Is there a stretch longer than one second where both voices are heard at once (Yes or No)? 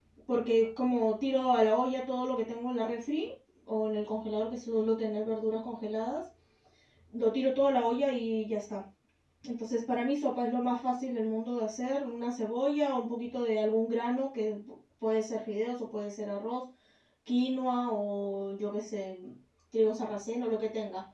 No